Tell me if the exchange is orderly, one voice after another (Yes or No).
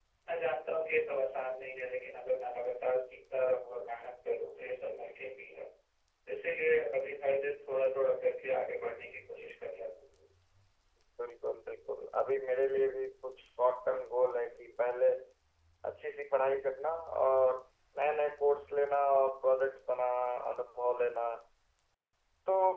Yes